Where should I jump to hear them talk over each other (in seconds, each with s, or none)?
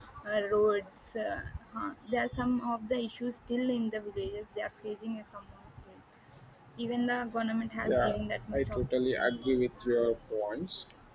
7.8 s